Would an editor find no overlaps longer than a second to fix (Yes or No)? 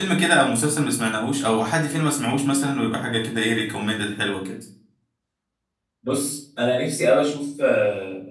Yes